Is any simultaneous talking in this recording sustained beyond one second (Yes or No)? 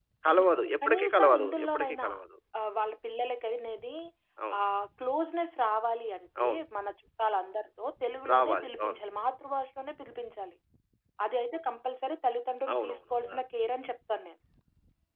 Yes